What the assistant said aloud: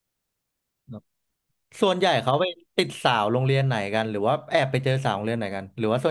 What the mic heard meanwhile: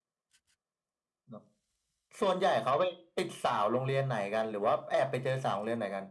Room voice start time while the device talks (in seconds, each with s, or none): none